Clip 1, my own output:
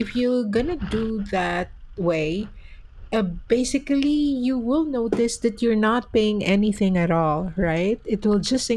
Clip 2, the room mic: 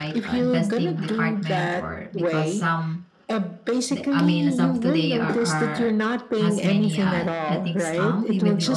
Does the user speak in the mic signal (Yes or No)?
Yes